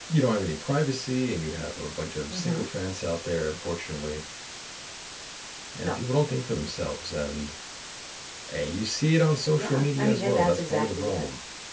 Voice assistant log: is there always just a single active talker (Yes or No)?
No